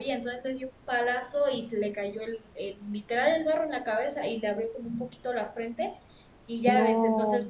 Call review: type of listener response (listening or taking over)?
listening